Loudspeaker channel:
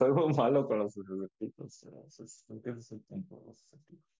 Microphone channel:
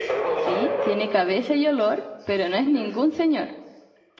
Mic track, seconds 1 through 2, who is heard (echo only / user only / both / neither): both